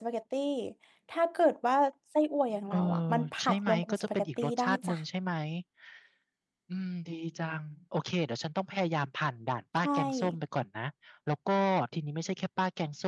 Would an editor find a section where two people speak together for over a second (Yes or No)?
Yes